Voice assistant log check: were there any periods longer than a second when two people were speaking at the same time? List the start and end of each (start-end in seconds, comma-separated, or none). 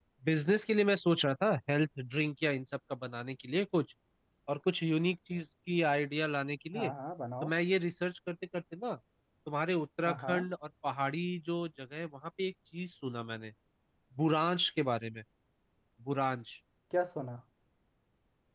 none